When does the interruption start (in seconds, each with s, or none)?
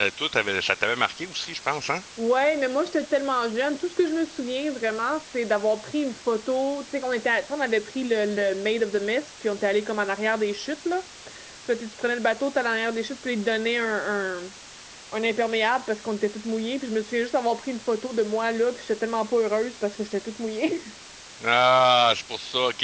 none